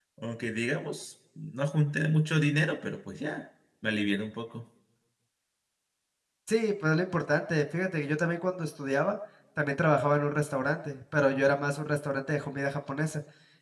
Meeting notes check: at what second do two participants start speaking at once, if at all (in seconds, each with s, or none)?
none